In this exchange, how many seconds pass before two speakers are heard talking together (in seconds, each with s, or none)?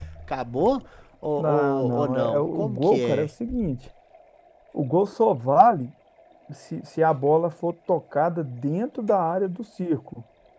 1.4 s